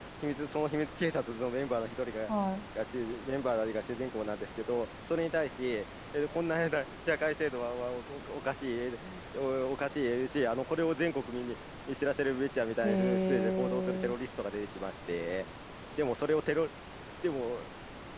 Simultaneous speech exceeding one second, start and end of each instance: 12.8-14.2

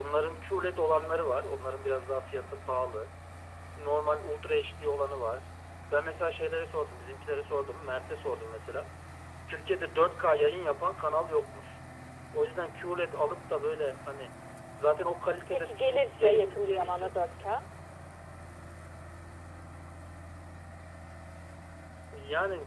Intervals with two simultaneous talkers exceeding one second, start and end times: 15.5-17.5

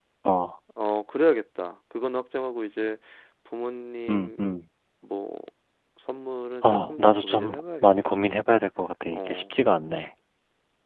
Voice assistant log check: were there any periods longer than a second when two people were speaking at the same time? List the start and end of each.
6.6-8.2

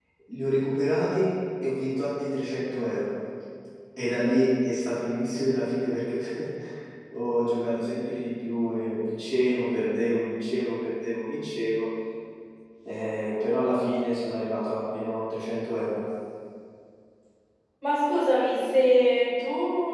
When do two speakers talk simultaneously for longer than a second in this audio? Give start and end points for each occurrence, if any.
none

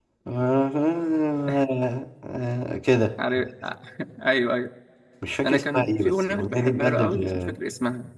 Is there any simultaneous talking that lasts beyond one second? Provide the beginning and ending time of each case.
5.4-7.6

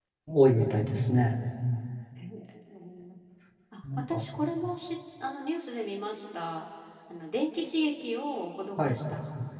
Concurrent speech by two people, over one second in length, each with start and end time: none

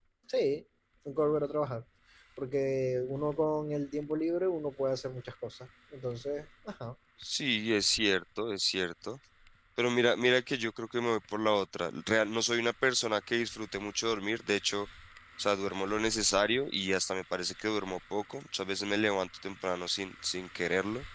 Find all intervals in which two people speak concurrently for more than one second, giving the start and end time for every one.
none

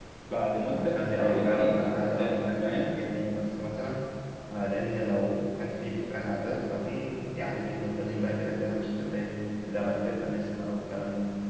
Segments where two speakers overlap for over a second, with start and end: 0.7-3.0

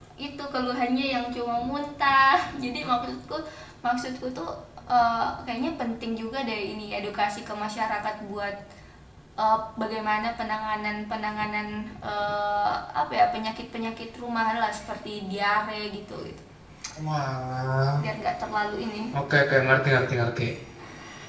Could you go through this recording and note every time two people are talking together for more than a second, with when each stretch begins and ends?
none

